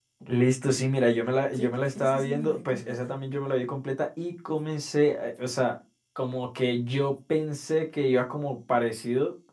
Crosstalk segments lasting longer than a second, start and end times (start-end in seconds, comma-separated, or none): 1.6-3.2